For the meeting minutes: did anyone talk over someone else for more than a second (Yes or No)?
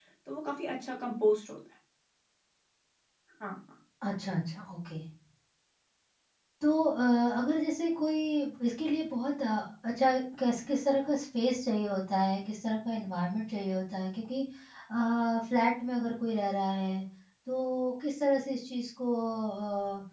No